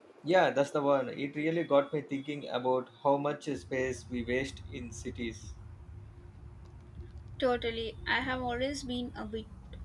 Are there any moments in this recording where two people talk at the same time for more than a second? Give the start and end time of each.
none

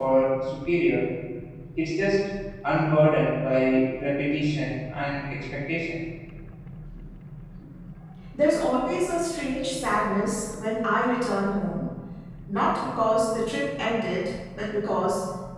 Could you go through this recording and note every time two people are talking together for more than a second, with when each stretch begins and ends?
none

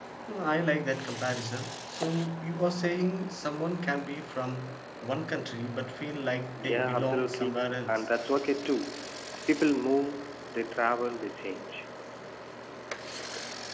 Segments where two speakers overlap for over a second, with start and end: 6.6-8.1

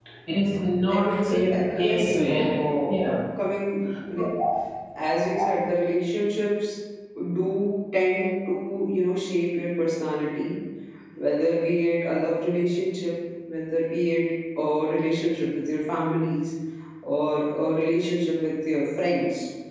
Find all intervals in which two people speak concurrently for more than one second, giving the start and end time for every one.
0.9-2.5

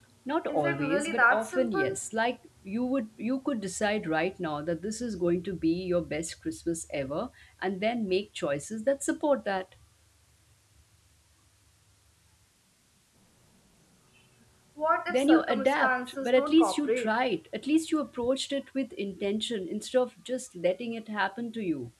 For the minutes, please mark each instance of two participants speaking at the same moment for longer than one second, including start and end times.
0.5-2.0, 15.1-17.1

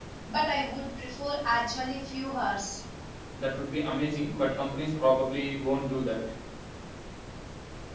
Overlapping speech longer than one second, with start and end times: none

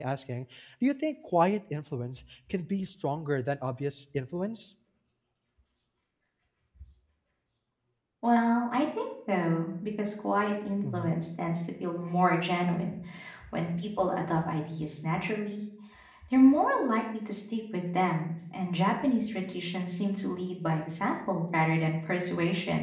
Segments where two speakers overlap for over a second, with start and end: none

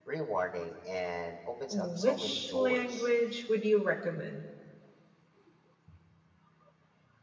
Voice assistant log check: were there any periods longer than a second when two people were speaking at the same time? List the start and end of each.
1.7-3.1

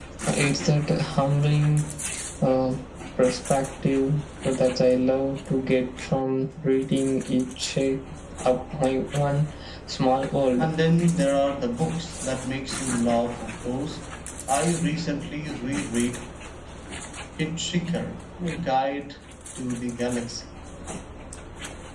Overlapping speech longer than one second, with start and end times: none

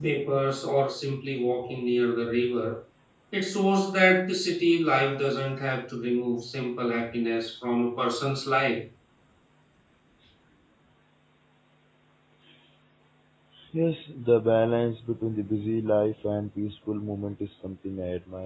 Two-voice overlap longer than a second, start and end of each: none

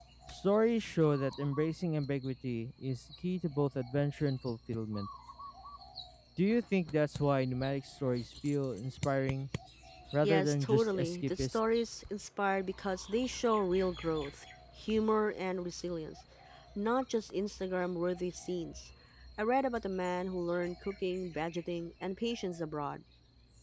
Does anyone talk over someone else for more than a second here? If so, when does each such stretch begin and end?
10.2-11.6

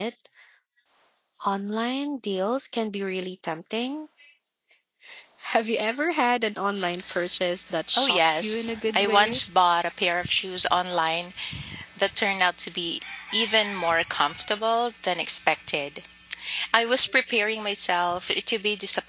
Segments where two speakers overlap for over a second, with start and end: 8.0-9.4

